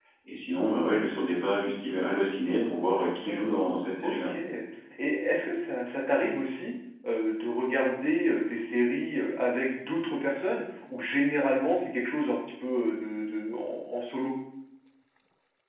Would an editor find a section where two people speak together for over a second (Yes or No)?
Yes